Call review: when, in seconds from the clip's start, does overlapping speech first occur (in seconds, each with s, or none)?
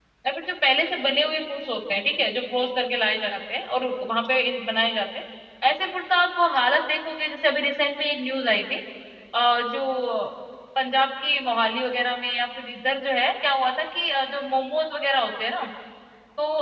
none